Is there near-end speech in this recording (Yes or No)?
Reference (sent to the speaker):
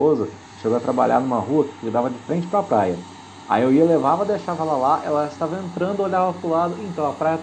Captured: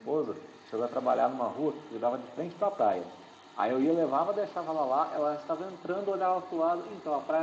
No